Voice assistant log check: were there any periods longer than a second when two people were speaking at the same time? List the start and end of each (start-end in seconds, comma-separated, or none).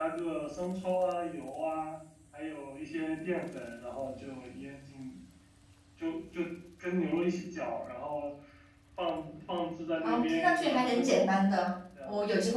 10.0-11.3